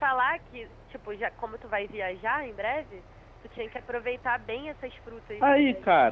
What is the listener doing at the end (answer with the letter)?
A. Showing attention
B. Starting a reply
B